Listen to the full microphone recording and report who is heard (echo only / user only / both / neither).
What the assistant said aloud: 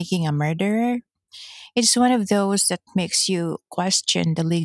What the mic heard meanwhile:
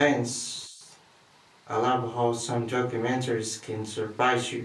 user only